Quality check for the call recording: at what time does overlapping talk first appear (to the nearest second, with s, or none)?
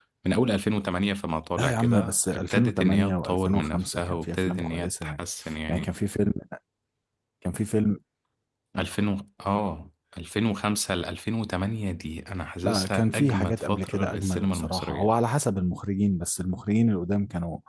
2 s